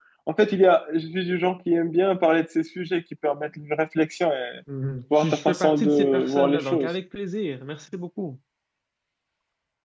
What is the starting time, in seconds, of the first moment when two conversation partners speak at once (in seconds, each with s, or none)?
5.2 s